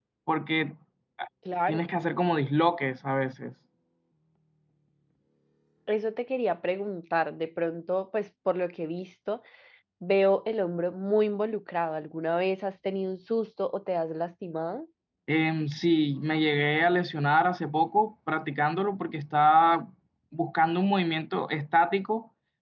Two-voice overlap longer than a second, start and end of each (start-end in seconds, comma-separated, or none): none